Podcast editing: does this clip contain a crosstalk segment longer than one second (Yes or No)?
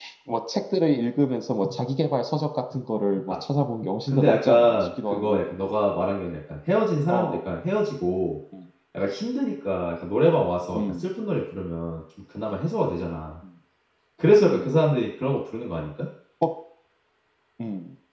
Yes